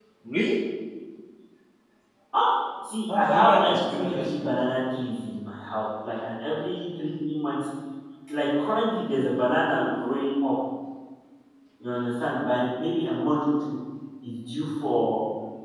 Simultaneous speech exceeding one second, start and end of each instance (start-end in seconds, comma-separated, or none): 3.1-4.3